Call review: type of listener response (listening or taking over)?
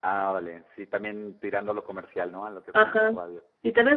taking over